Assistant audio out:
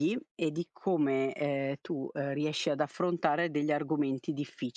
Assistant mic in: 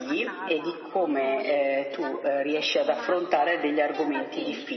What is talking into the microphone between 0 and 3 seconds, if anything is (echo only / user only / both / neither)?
both